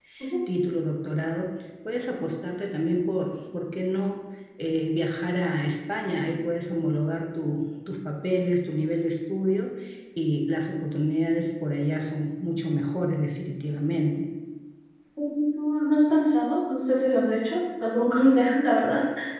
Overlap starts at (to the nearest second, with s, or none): none